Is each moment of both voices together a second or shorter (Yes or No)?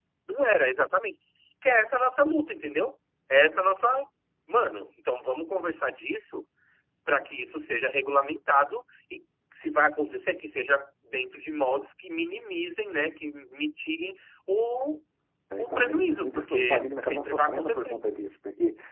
No